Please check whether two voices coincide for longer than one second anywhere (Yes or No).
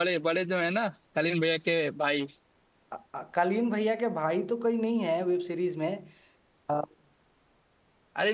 No